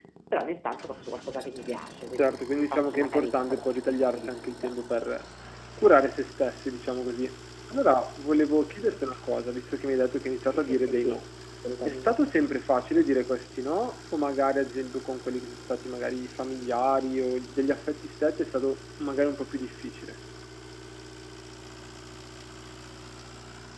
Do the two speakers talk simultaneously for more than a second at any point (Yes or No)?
Yes